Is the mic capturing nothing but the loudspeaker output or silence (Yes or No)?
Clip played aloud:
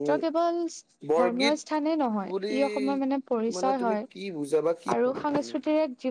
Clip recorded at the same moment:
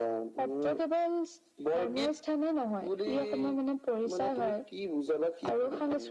Yes